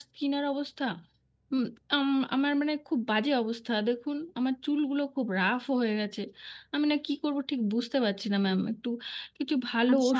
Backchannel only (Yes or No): No